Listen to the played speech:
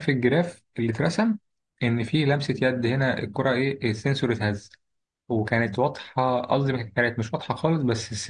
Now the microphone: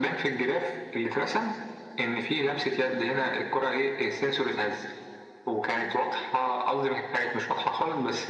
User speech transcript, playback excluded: none

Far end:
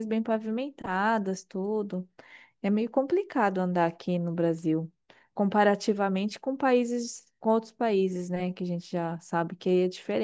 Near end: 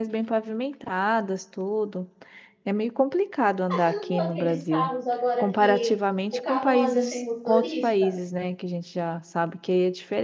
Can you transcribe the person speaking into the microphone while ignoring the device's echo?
Ah, você não viu aqueles carros agora que o carro anda sem motorista?

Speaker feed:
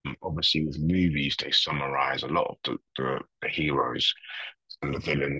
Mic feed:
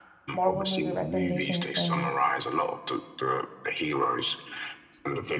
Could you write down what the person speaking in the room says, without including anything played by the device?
Marvel movie recommendations for me.

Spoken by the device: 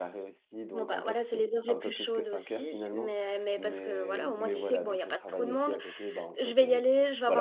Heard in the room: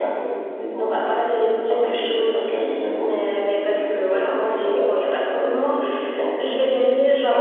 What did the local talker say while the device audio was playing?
none

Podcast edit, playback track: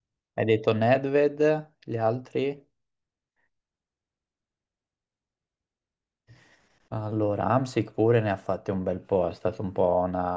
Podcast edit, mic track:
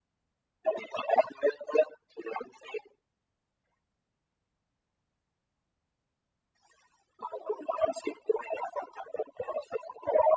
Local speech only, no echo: none

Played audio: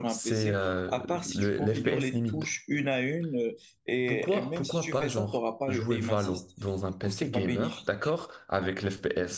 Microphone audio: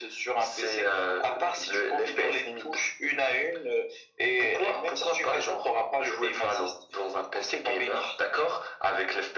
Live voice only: none

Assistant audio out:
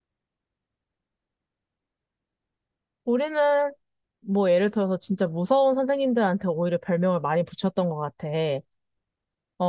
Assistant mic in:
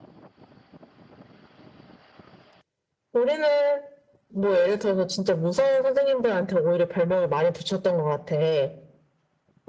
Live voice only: none

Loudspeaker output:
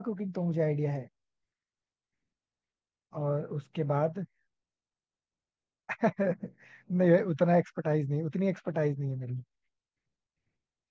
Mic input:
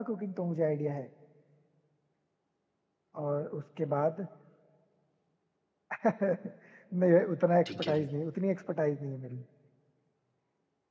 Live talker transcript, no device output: ठीक है।

